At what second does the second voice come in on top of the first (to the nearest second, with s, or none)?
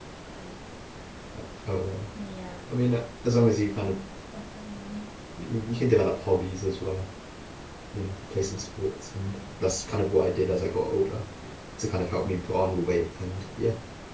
none